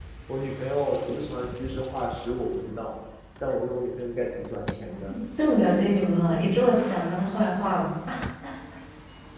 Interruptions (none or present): none